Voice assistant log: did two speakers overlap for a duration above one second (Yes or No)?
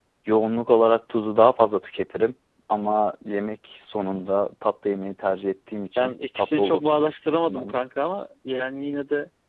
Yes